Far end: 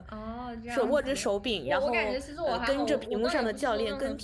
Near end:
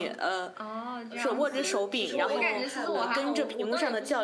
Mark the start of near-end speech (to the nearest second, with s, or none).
1 s